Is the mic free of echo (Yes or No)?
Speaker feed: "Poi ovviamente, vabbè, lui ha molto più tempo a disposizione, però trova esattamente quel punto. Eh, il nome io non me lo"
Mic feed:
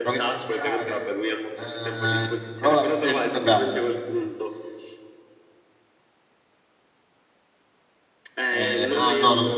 No